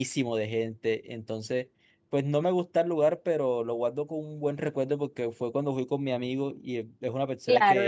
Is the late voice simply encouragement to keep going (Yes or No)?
No